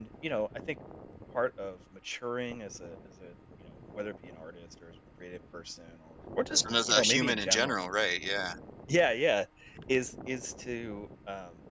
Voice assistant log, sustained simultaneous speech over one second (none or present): present